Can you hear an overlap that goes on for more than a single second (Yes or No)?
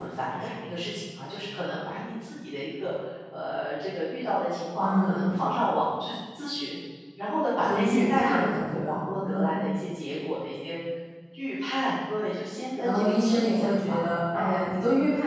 Yes